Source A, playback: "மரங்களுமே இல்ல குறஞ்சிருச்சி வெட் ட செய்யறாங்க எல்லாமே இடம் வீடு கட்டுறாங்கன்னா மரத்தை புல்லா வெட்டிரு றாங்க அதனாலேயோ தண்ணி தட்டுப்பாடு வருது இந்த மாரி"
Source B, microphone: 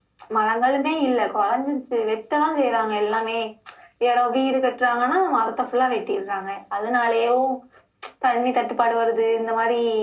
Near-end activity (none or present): none